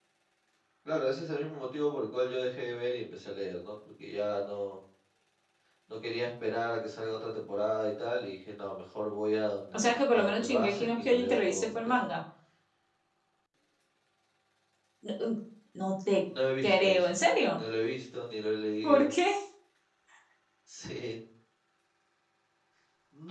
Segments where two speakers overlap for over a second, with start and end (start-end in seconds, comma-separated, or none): 9.8-11.9